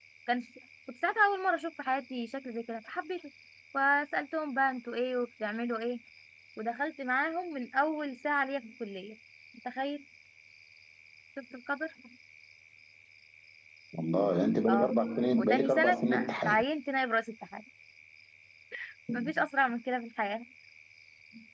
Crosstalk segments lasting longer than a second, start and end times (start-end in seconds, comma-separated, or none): 15.4-16.6